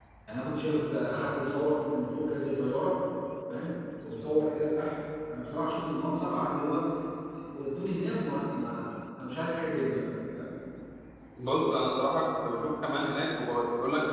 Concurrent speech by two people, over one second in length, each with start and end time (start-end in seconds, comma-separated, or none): none